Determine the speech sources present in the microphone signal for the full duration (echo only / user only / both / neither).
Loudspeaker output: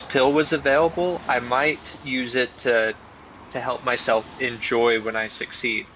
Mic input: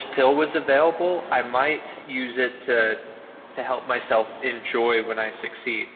echo only